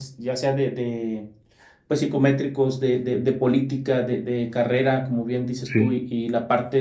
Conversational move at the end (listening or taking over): listening